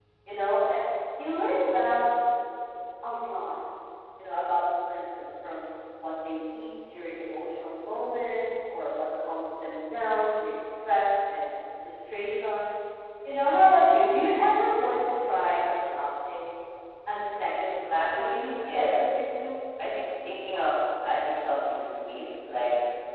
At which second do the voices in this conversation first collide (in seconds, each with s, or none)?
17.9 s